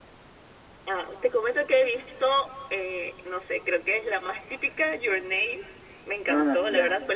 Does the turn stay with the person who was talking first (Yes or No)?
Yes